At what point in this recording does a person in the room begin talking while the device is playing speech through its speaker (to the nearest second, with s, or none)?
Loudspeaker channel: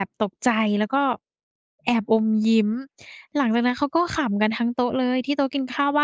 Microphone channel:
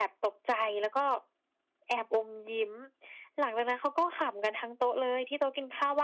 none